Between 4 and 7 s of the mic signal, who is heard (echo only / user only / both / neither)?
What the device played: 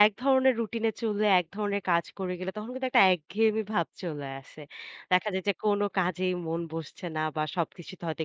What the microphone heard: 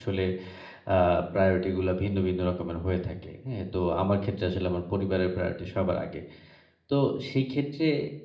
user only